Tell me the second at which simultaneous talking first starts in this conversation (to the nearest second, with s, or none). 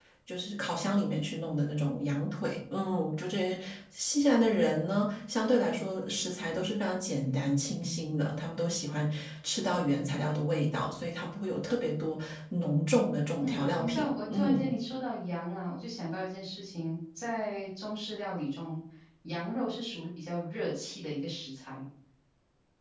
13 s